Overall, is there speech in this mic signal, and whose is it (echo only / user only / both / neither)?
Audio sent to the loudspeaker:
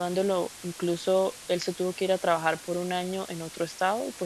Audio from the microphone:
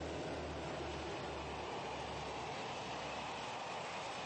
neither